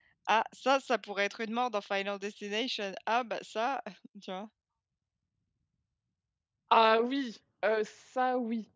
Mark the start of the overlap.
none

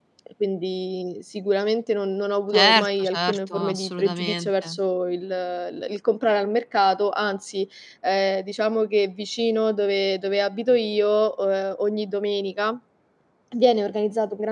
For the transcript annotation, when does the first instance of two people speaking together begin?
2.5 s

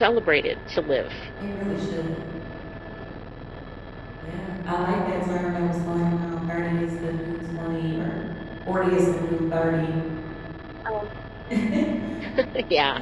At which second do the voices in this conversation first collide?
none

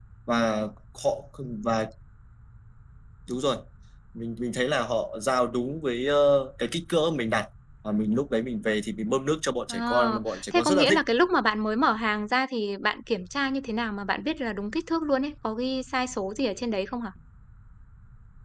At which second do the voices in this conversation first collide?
9.7 s

